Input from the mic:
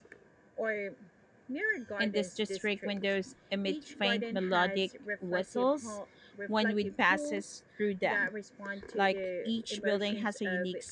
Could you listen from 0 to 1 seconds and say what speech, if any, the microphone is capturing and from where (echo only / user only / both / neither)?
echo only